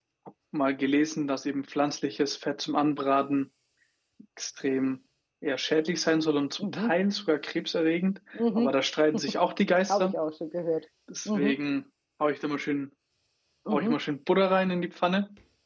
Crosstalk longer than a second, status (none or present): none